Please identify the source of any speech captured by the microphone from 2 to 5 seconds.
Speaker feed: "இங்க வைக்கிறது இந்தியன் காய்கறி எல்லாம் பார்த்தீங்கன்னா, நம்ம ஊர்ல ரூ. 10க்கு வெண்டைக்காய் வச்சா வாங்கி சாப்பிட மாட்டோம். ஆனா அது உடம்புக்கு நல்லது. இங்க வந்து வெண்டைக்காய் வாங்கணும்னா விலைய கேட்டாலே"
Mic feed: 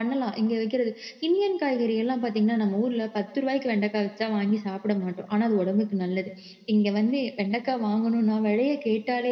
echo only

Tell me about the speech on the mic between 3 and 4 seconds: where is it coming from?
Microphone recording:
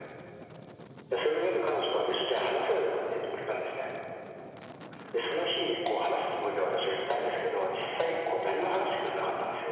echo only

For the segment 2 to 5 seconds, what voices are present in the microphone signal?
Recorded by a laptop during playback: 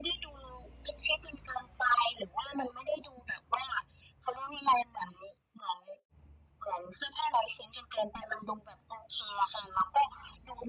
echo only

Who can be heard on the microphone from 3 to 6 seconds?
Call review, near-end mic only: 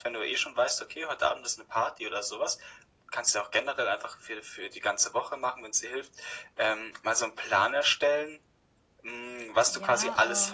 echo only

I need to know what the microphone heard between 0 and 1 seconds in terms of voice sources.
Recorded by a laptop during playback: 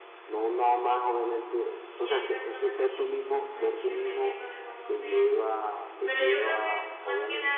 echo only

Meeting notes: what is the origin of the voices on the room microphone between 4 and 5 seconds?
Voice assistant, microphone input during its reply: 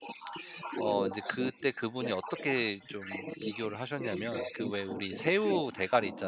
both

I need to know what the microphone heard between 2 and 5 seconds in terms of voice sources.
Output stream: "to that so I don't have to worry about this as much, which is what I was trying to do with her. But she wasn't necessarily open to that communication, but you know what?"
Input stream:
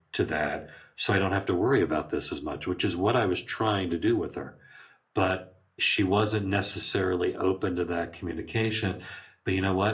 echo only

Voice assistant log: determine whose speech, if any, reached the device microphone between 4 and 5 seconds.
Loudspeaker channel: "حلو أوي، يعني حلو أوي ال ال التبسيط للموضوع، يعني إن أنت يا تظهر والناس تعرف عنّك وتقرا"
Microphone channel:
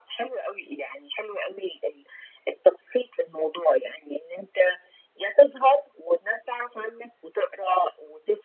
echo only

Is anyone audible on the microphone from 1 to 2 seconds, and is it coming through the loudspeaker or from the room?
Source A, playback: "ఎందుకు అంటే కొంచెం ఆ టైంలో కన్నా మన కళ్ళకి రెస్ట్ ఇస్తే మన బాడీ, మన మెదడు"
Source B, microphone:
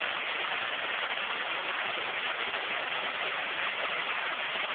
neither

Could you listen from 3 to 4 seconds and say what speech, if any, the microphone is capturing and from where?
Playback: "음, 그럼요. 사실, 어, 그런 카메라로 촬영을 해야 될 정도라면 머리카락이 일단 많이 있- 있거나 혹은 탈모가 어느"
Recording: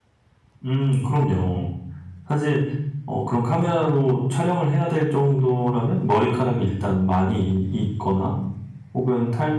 echo only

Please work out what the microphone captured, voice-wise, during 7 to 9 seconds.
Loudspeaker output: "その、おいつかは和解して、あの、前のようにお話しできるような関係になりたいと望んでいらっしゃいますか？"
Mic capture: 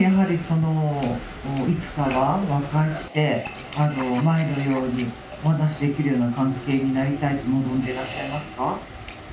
echo only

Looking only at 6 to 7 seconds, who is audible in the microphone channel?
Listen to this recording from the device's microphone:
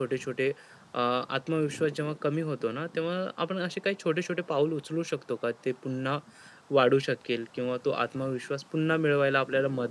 user only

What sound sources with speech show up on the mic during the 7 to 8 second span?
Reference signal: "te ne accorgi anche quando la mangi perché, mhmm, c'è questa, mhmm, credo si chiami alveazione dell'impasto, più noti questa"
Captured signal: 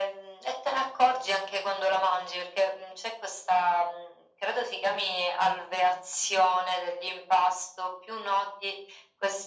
echo only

